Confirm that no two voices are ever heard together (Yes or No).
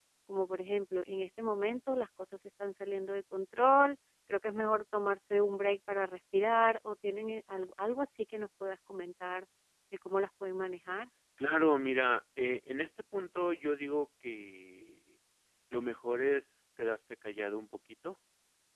Yes